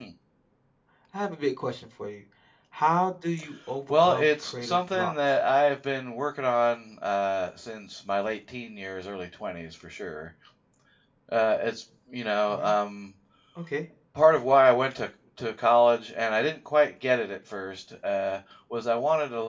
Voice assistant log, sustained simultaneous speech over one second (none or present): present